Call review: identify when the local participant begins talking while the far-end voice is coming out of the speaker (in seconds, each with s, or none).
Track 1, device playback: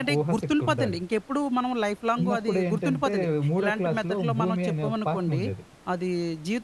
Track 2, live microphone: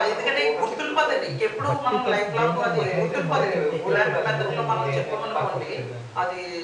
1.3 s